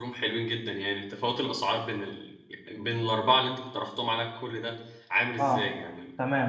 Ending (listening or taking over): taking over